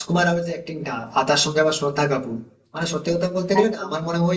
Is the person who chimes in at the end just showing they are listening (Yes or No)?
Yes